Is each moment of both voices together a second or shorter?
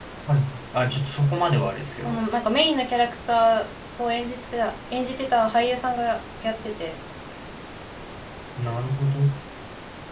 Yes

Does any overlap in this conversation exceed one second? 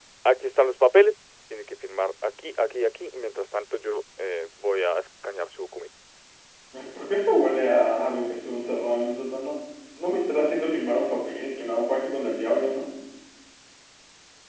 No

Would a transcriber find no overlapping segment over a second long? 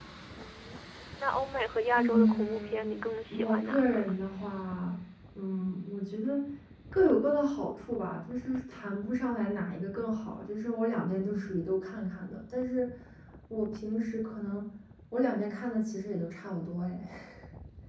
No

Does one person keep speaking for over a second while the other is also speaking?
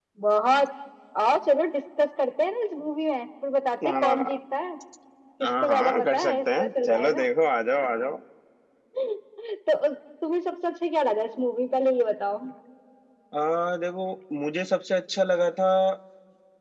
Yes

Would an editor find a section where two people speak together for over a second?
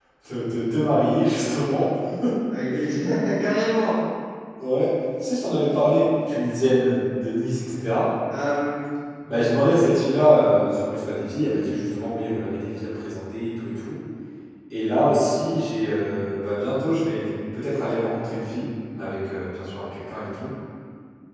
No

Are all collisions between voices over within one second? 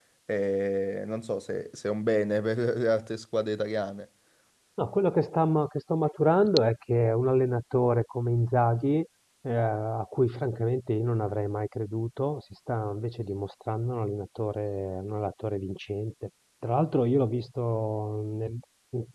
Yes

